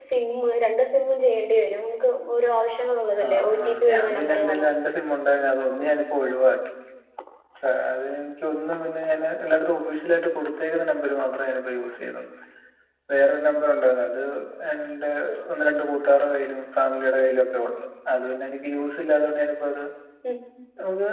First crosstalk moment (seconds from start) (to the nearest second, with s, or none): 3 s